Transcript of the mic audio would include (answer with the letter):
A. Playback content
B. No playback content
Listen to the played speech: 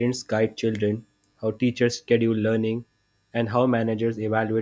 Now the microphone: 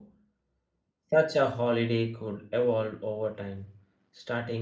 B